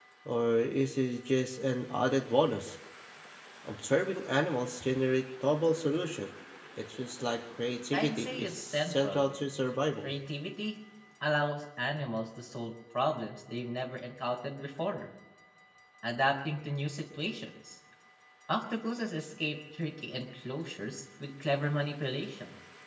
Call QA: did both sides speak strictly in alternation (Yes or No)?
No